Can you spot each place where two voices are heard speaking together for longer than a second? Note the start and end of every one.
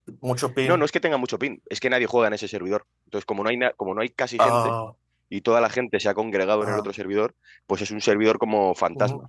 none

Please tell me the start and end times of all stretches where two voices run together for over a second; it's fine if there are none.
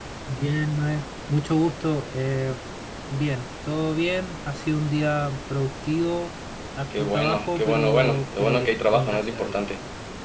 7.0-9.6

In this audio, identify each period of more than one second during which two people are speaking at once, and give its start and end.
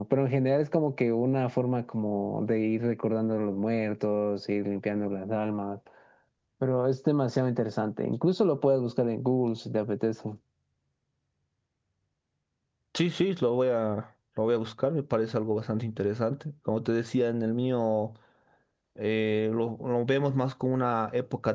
none

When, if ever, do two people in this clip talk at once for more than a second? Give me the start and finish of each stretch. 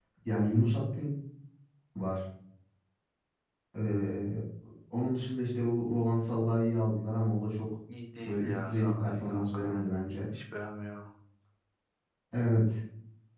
8.3-9.8

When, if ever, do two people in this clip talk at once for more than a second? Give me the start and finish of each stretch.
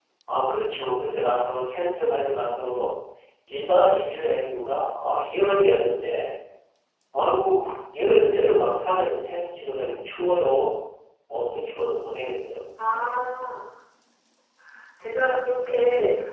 none

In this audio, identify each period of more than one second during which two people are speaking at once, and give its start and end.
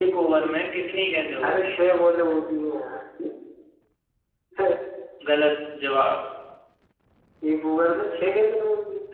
none

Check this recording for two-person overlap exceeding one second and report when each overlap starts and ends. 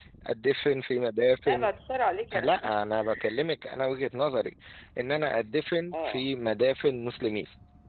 none

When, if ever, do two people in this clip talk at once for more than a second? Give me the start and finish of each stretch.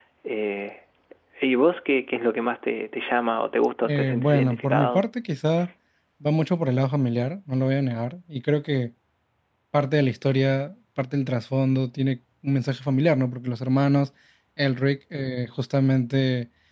3.8-5.0

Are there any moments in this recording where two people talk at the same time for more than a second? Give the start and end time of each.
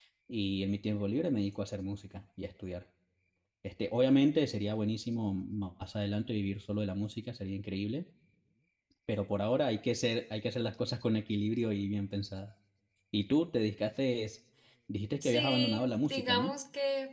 15.2-16.5

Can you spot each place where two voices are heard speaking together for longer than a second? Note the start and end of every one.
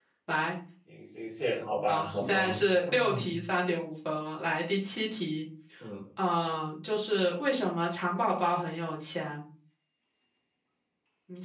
1.9-3.2

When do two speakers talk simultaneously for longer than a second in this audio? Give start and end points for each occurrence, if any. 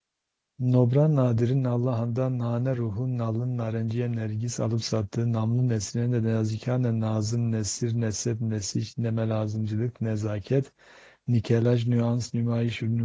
none

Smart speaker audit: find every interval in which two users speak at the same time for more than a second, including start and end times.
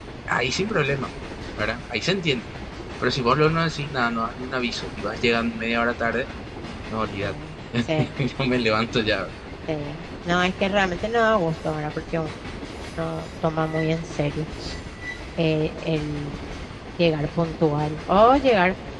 none

